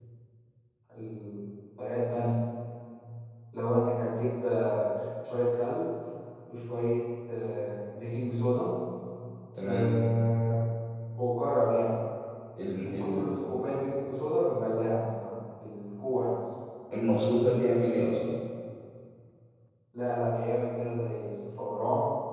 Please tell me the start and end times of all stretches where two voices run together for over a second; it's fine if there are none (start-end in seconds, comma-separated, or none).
none